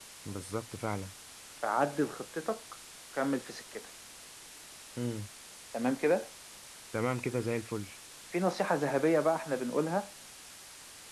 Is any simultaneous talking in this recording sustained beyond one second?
No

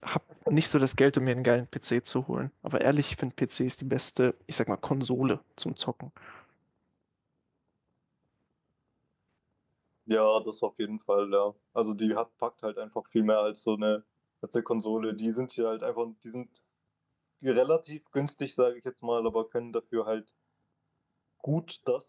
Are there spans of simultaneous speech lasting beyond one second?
No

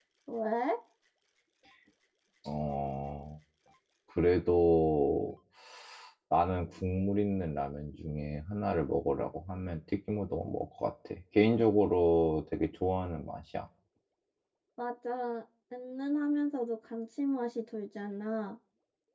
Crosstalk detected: No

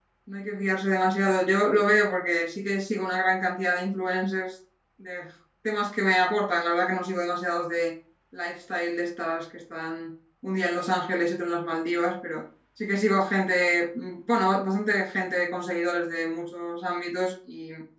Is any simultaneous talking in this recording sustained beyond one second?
No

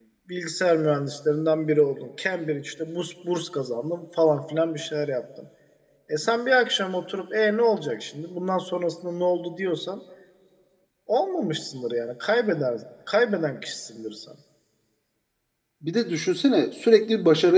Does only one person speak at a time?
Yes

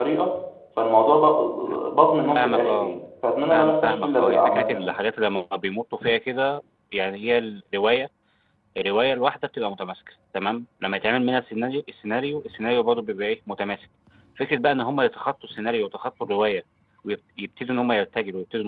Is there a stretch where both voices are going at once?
Yes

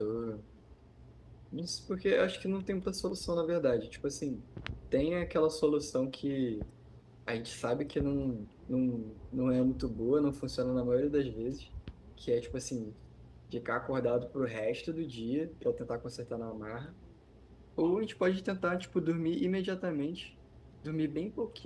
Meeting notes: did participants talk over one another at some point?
No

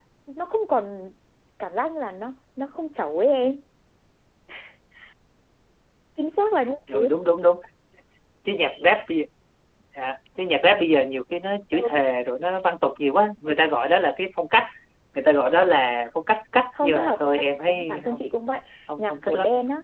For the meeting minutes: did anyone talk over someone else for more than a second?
Yes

